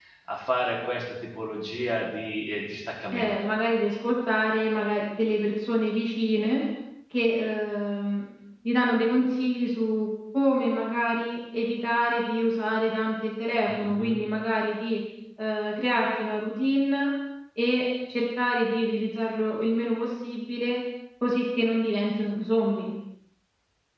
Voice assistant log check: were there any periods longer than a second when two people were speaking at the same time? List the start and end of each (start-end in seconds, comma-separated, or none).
none